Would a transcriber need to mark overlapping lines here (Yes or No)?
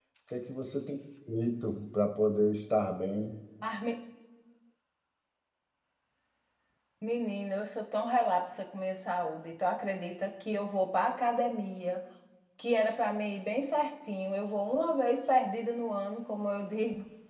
No